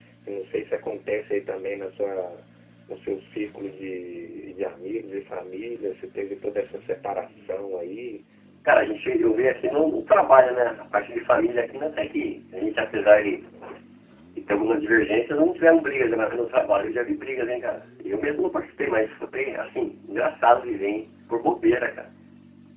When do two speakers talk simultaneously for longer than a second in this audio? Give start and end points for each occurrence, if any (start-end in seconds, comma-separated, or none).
none